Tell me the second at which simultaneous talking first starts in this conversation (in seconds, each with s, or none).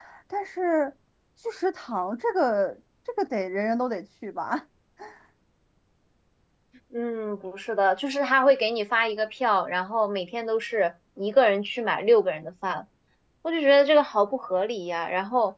none